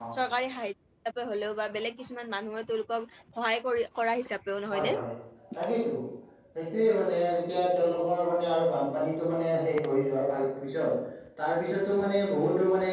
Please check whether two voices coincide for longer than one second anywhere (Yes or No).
No